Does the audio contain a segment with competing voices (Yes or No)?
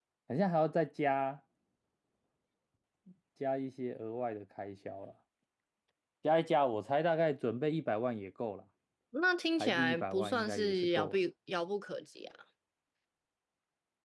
Yes